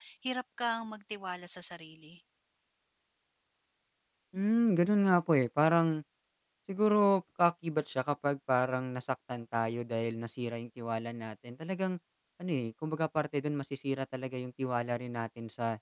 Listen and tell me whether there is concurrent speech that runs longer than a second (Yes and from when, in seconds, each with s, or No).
No